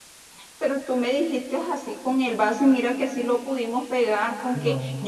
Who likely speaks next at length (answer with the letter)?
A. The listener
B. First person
B